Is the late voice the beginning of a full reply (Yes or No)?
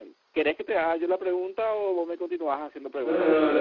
Yes